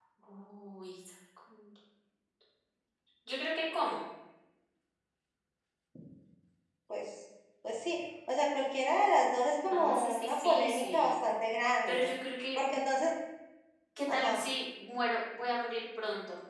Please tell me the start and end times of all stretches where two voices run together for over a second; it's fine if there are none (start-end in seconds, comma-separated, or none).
9.7-11.1